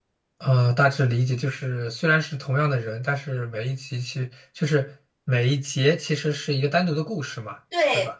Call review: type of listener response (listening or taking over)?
taking over